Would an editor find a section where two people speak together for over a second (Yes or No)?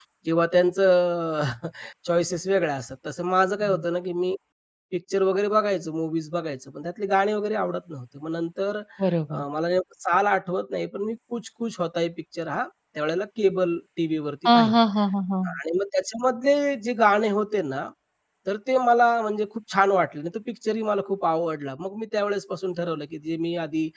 No